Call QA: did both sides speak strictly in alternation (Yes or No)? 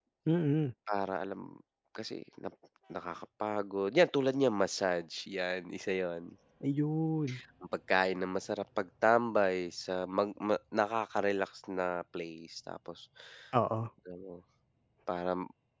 Yes